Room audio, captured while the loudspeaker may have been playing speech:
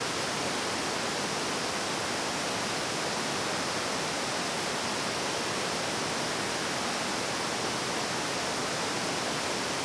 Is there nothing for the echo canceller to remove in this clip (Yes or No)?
Yes